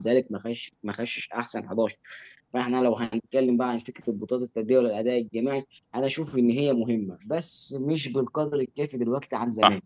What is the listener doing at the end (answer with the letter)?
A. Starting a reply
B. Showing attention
A